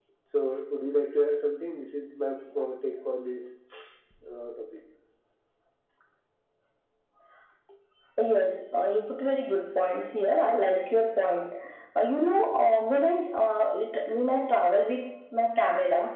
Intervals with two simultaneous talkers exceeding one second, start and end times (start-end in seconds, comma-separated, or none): none